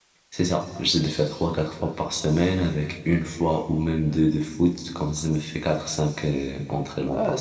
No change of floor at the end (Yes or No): No